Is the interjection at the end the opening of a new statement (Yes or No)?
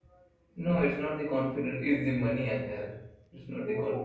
Yes